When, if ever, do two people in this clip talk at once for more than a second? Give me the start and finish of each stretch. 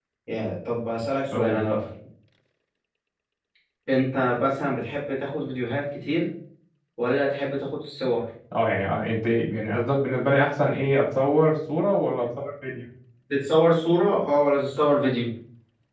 none

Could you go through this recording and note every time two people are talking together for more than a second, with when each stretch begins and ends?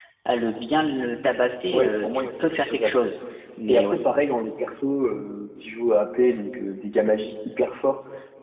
1.7-2.9

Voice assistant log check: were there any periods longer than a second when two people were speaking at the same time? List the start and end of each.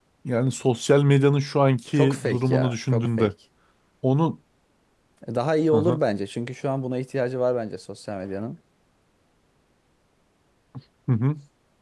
1.9-3.3

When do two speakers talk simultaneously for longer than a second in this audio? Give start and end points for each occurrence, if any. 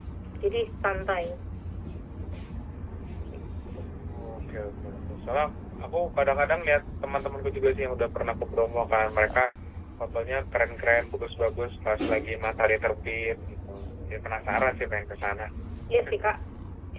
none

